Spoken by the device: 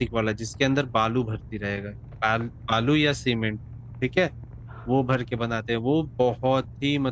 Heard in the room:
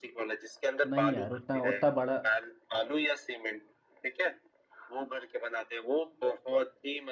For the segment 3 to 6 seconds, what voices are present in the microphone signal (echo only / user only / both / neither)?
echo only